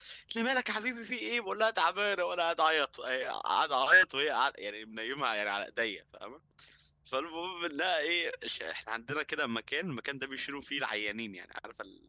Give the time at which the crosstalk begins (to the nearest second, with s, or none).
none